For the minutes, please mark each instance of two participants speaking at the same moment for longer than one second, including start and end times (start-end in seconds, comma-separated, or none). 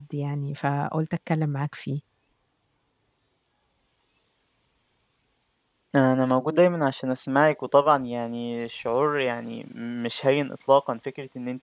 none